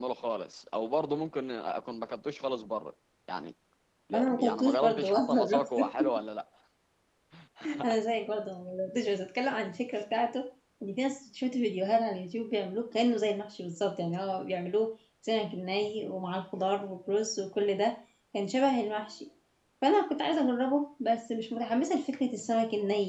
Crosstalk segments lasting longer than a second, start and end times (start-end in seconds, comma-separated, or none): 4.1-6.1